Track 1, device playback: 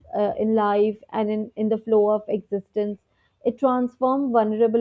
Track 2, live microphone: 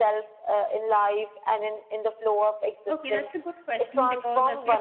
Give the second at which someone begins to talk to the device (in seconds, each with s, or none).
2.9 s